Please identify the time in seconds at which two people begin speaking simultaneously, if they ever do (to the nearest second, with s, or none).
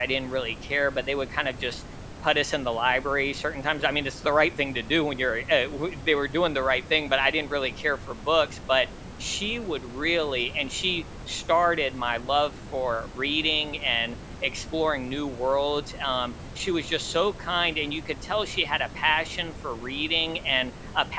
none